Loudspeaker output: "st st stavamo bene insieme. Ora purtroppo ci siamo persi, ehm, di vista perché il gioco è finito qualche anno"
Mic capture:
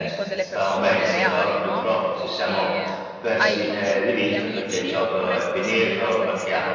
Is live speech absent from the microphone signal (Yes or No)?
No